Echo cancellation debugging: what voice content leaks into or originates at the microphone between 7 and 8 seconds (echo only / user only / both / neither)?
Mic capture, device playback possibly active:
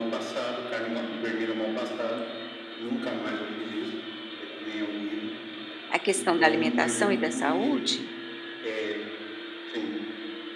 both